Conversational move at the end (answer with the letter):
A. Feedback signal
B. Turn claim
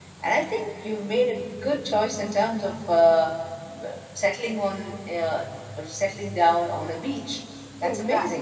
B